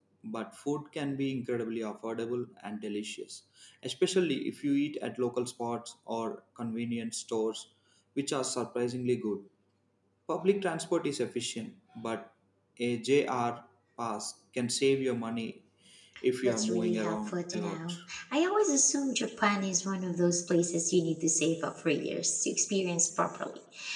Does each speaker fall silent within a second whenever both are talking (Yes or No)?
No